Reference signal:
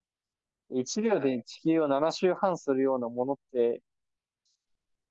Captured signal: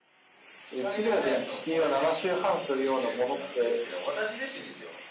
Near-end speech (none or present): present